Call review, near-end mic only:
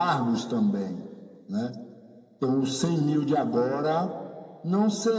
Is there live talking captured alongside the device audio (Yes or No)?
No